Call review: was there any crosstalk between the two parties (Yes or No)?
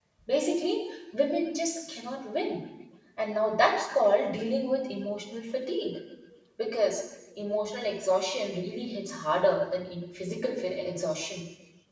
No